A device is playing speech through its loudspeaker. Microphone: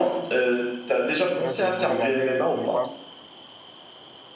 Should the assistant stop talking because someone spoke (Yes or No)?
Yes